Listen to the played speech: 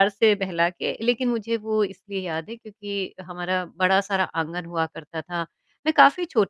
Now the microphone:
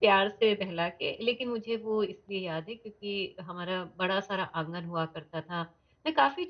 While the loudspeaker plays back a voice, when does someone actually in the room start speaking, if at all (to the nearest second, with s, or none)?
none